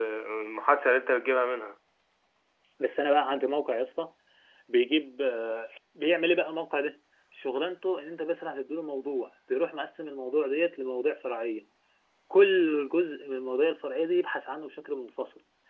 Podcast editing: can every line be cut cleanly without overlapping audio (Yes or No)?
Yes